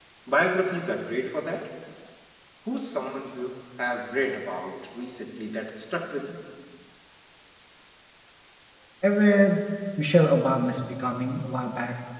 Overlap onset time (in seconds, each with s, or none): none